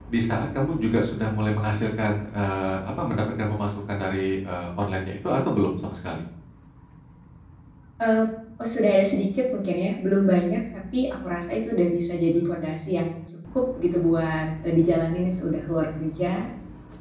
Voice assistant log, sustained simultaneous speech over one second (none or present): none